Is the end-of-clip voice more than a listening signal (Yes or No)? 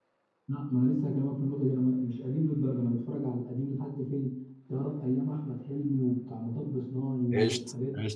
Yes